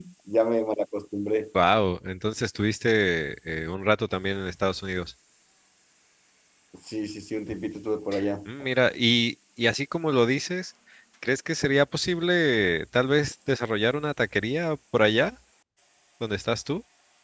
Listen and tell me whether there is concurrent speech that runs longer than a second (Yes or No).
No